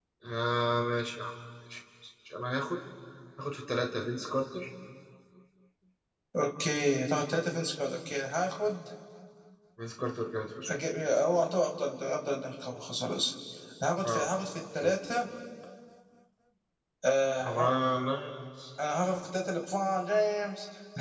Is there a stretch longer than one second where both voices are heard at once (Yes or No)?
No